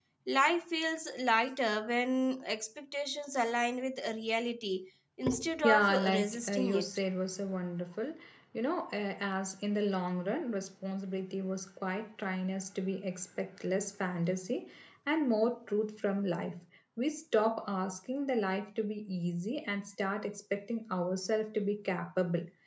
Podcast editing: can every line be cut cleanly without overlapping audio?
No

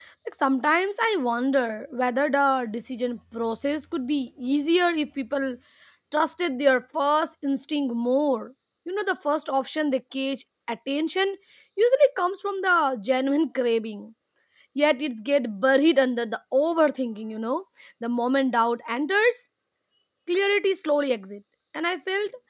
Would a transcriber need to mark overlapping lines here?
No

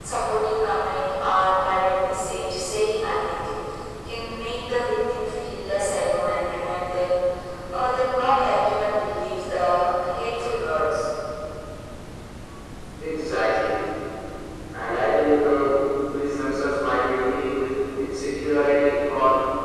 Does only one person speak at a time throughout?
Yes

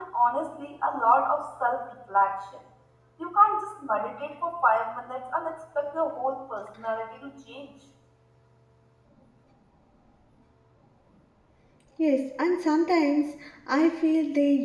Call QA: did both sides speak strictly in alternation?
Yes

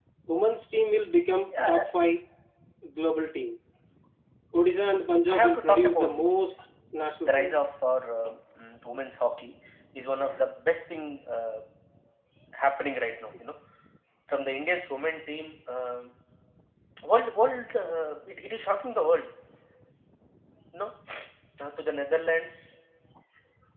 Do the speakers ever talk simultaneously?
Yes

